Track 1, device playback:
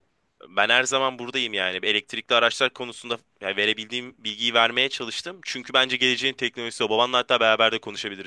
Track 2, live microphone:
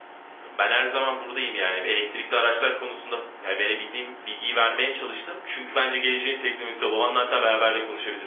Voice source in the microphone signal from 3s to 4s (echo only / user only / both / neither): echo only